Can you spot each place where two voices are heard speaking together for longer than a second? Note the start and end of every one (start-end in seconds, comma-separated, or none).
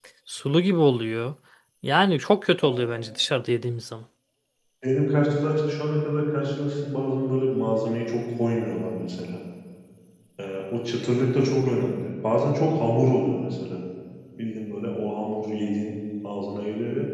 none